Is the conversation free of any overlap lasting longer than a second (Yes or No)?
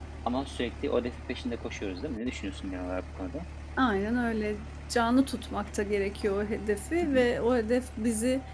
Yes